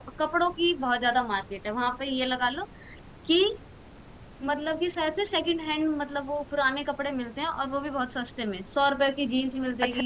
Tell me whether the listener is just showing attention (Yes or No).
No